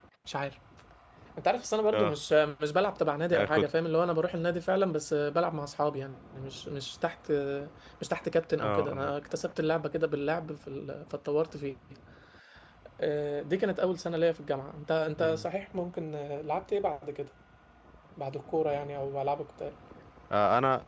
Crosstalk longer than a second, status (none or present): none